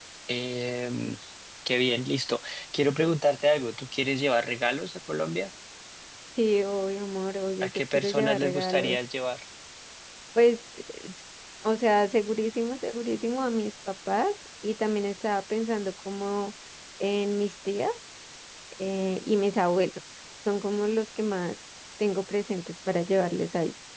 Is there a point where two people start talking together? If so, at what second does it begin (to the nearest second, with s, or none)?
8 s